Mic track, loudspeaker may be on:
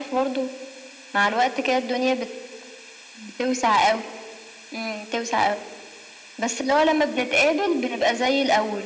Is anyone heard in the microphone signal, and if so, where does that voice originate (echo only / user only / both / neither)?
echo only